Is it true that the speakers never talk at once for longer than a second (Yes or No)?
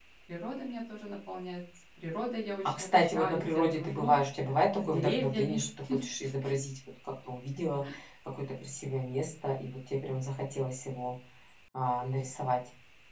No